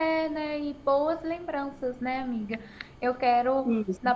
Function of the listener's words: listening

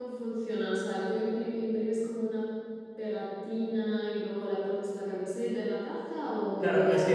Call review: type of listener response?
taking over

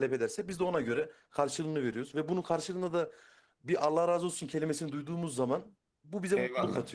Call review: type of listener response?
taking over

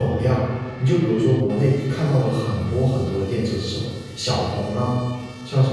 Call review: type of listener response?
listening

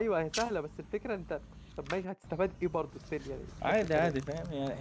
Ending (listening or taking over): taking over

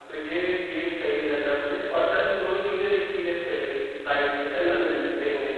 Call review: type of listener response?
taking over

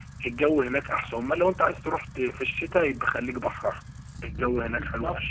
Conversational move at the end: taking over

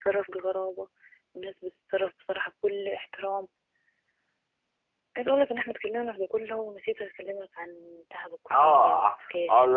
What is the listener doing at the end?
taking over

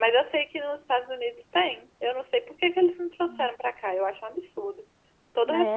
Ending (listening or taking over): taking over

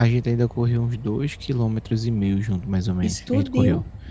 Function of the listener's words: listening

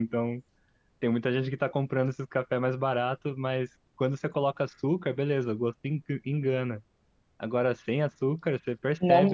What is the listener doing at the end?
listening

